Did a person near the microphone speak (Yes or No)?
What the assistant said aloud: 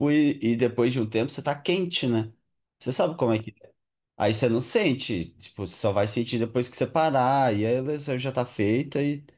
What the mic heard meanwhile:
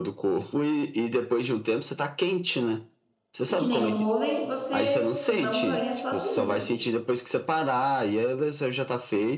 Yes